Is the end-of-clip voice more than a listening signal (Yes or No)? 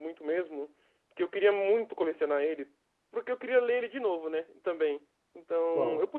No